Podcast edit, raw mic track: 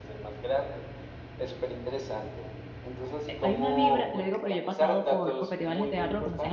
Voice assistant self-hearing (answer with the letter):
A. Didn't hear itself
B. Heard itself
B